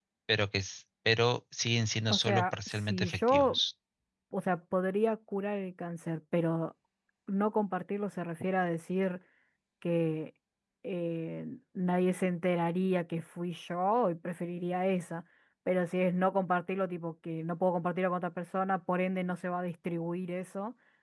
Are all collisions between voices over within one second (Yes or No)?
No